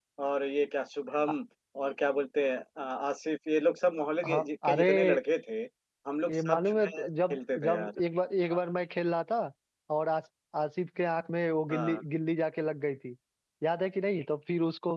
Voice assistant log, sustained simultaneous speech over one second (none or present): present